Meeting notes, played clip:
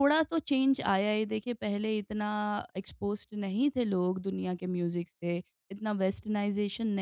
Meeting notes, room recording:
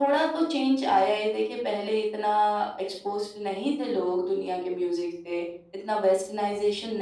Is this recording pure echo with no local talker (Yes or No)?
Yes